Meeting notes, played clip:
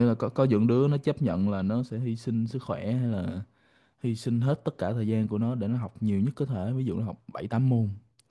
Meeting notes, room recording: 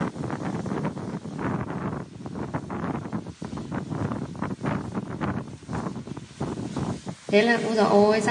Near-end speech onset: 7.3 s

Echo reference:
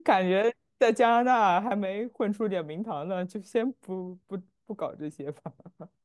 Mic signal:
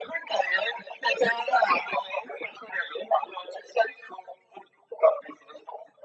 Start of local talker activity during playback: none

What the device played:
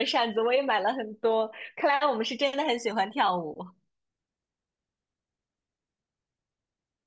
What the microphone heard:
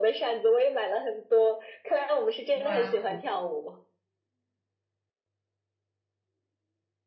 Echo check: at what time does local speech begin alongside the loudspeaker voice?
2.5 s

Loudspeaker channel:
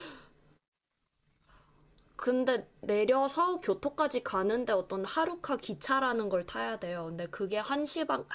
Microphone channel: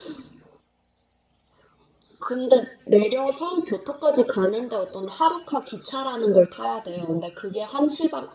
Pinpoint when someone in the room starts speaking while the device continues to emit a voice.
none

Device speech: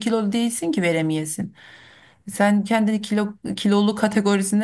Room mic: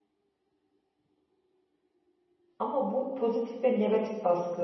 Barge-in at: 2.6 s

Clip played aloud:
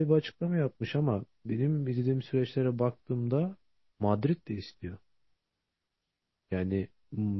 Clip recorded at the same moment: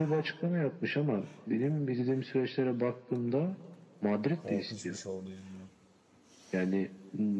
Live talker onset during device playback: 4.4 s

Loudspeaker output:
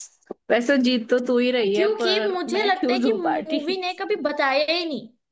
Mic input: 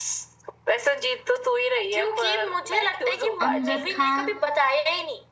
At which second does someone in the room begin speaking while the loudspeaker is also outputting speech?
3.4 s

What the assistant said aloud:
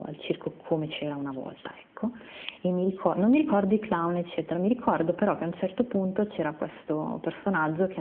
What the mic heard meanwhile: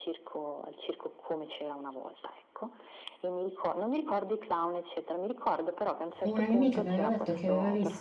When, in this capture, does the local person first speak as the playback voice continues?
6.2 s

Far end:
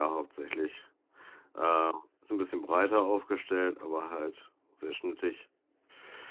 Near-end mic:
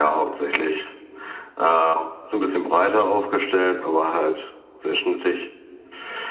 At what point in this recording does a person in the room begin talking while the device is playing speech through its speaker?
none

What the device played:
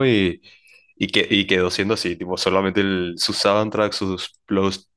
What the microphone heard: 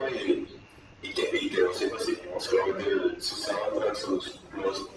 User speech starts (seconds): none

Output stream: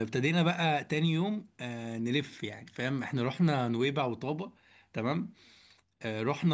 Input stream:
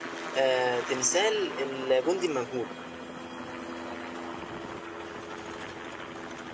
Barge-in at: 0.3 s

